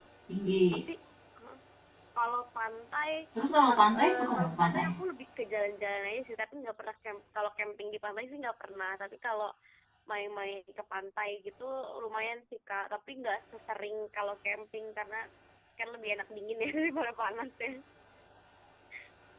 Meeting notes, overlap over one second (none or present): present